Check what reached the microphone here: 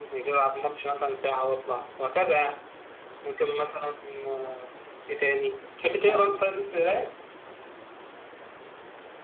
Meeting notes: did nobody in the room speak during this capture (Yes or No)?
No